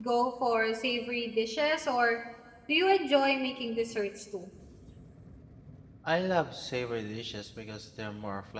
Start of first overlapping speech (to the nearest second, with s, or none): none